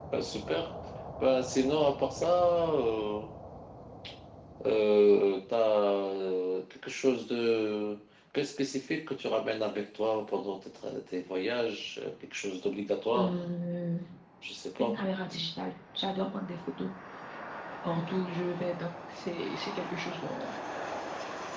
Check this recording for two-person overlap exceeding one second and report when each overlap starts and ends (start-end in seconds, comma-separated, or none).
none